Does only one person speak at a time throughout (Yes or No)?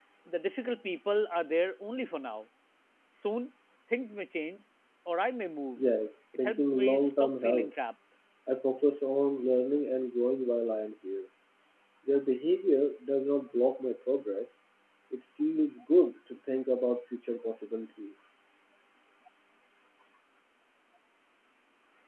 No